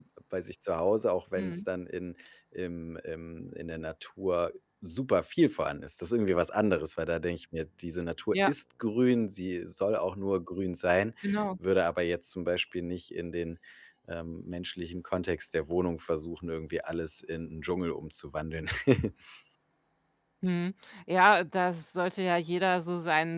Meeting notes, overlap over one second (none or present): none